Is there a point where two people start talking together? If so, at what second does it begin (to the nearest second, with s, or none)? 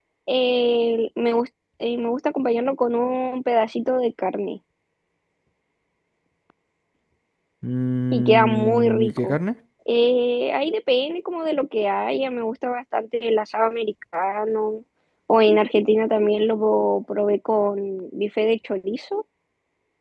8 s